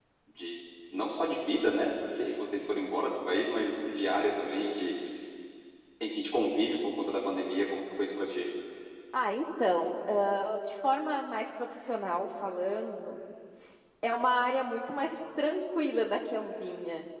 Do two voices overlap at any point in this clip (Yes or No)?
No